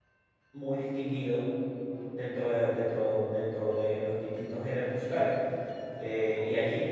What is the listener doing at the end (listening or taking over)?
taking over